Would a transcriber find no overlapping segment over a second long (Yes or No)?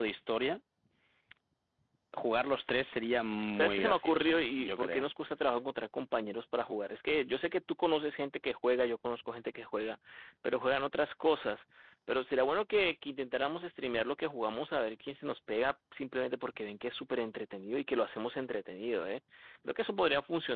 No